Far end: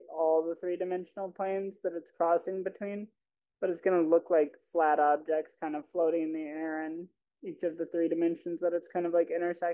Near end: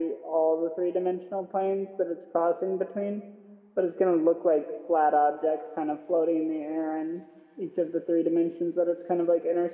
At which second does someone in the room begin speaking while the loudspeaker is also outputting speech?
none

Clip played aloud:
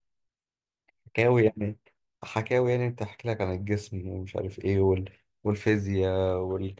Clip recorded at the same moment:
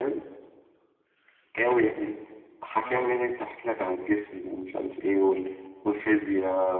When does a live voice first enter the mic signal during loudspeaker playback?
2.8 s

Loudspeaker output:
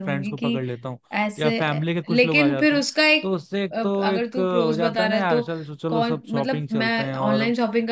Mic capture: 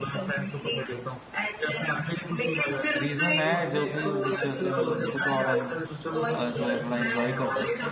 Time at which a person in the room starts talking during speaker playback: 3.0 s

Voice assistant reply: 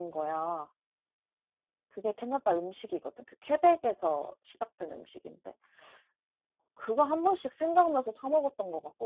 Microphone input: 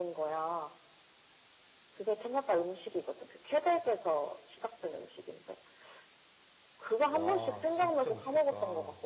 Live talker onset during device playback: 7.1 s

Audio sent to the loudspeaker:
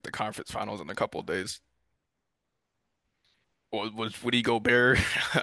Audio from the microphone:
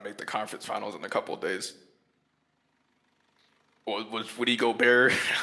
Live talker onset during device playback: none

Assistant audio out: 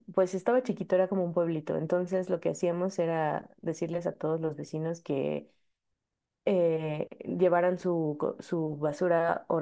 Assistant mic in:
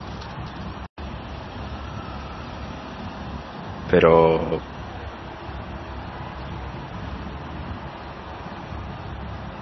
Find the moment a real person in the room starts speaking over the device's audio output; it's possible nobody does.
3.9 s

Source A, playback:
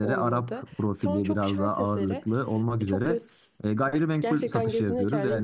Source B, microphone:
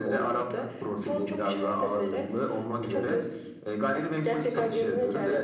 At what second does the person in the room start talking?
none

